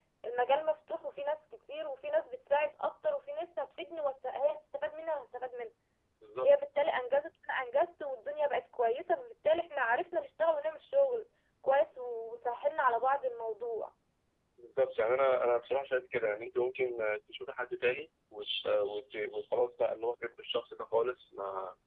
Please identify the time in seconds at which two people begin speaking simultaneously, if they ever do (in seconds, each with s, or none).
none